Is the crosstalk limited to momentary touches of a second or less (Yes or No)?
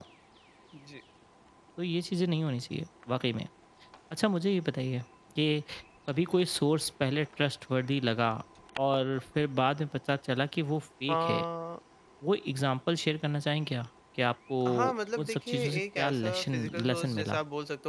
No